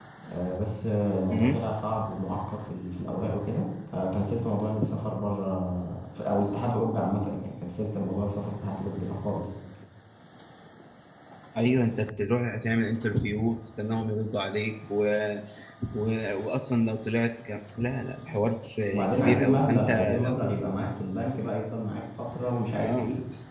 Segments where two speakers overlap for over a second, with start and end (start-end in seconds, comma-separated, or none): 19.1-20.4